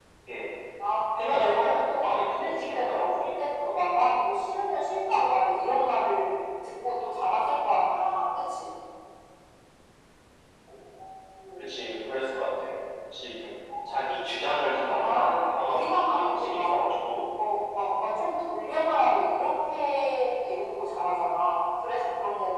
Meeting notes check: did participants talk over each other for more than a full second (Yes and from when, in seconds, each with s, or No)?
Yes, from 1.3 s